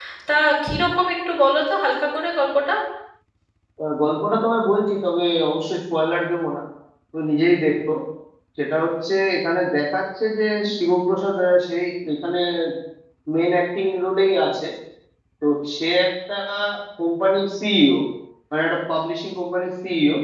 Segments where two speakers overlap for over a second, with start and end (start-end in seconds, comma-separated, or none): none